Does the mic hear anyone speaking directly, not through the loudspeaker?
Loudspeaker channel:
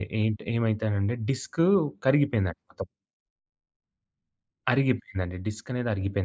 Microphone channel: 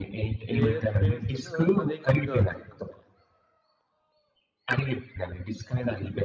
Yes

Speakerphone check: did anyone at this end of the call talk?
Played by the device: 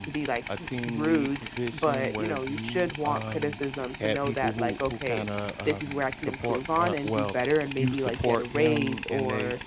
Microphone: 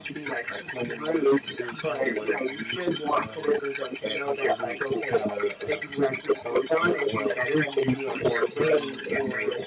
No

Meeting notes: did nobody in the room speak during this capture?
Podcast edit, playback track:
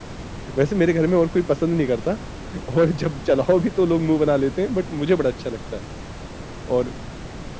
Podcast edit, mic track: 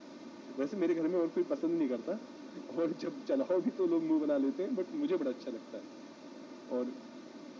Yes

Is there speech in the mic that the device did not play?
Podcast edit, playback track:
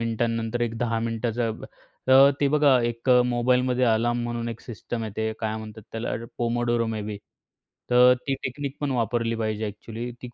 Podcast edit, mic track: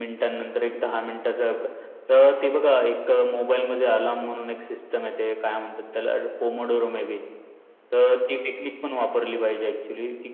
No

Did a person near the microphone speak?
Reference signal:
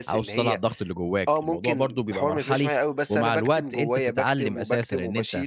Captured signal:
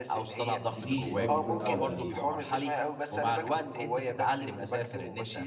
Yes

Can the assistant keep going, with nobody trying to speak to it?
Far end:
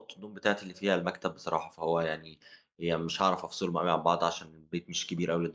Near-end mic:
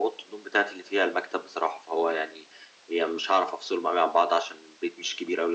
Yes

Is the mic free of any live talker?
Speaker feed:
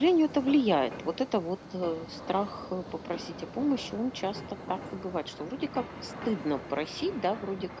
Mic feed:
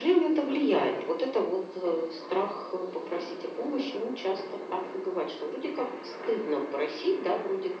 Yes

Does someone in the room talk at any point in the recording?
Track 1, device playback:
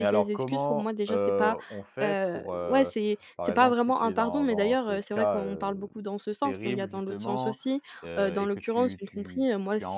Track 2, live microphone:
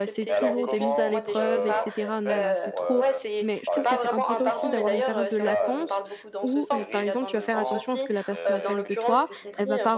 Yes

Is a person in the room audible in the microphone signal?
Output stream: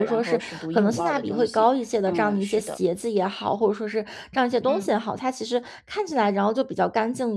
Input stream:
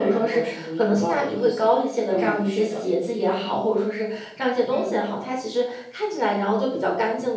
No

